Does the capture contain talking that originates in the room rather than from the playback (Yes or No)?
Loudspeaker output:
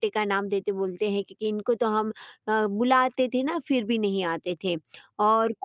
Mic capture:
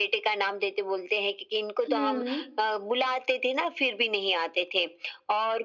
Yes